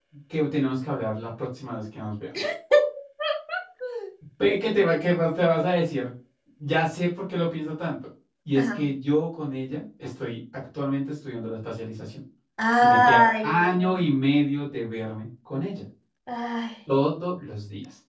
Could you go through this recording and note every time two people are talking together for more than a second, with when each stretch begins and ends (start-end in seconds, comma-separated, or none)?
12.8-14.0